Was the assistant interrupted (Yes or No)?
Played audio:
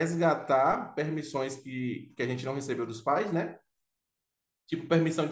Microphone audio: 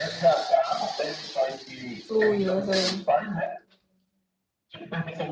Yes